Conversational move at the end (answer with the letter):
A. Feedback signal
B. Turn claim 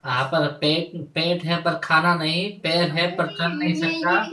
B